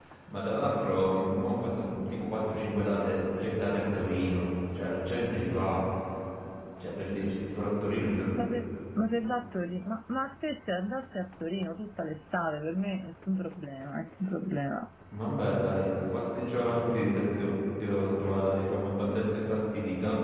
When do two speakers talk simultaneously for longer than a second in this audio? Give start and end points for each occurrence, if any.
none

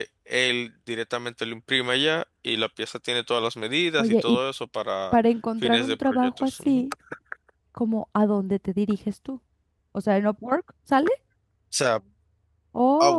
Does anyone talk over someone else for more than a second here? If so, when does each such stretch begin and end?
5.6-6.8

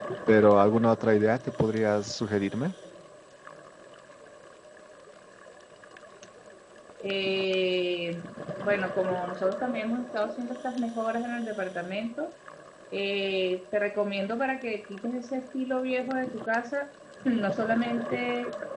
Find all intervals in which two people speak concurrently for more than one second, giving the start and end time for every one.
none

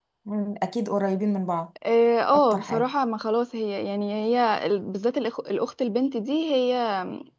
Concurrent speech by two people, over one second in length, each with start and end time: none

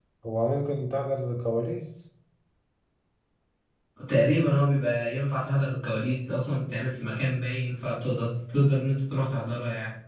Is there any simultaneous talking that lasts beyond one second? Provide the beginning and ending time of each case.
none

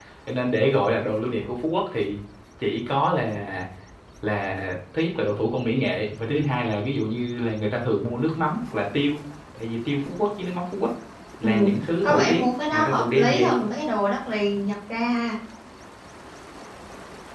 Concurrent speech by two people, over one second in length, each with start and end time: 12.0-13.5

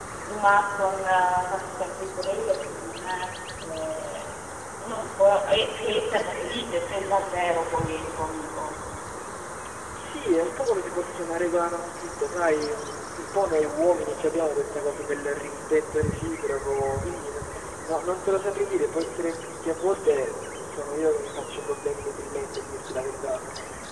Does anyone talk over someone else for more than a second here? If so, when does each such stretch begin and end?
none

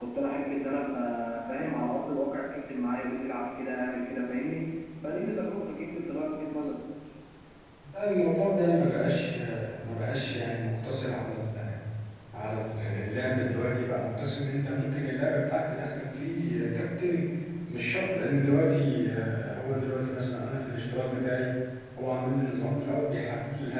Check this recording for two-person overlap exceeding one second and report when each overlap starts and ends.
none

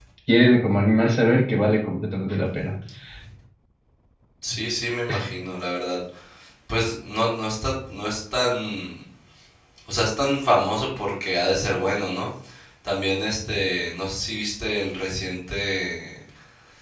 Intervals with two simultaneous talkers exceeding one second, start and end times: none

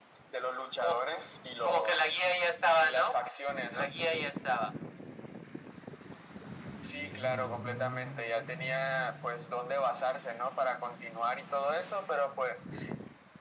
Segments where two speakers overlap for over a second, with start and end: 1.6-3.2

